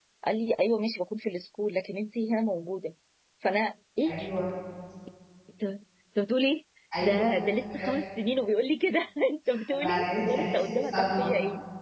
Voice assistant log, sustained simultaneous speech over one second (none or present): present